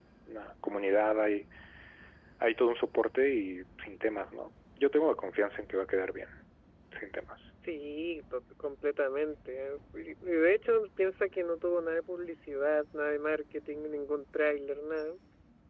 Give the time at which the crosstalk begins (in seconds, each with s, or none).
none